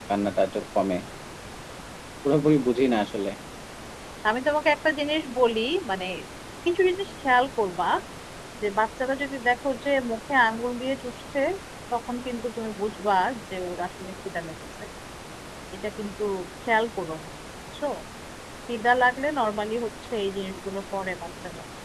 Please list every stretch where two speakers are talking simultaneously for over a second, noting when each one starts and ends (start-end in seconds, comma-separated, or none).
none